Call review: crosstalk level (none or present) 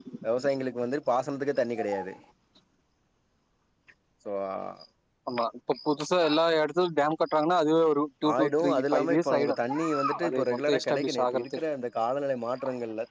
present